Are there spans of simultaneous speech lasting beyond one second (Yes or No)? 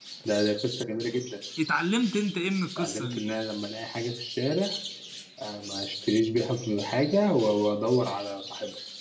No